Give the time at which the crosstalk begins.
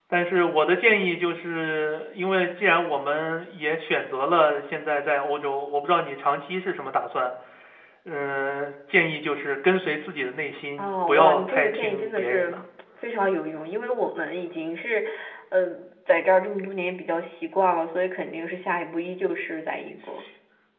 11 s

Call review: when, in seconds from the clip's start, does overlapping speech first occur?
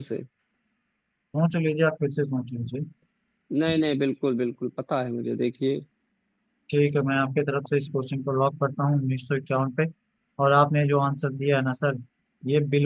none

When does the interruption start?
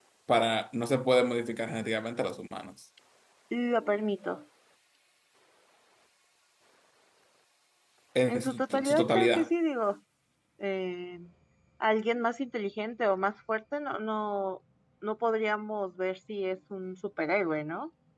8 s

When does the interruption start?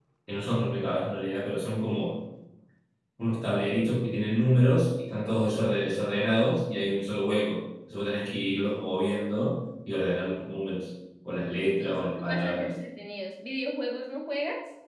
11 s

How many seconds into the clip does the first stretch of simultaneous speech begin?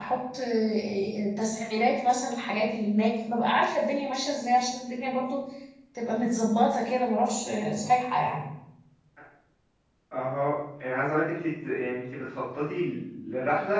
none

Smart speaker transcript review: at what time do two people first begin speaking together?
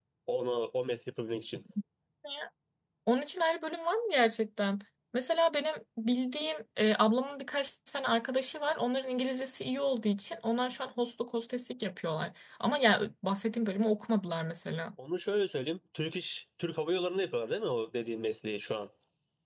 none

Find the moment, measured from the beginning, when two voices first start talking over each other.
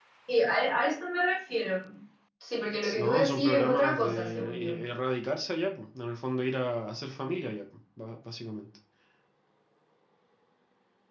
3 s

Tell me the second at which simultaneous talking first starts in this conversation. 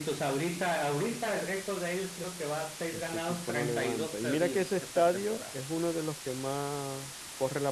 3 s

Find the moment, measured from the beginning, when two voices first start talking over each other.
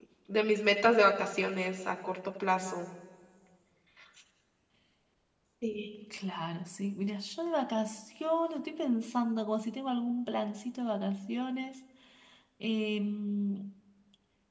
none

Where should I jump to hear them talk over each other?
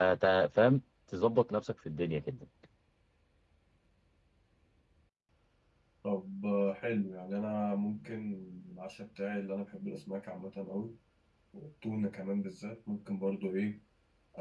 none

